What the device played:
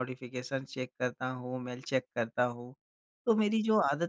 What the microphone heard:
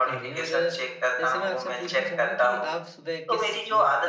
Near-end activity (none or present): present